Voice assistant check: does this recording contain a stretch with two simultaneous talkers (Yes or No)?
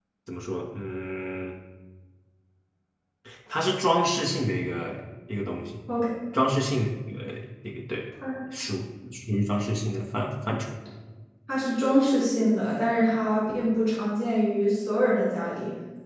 No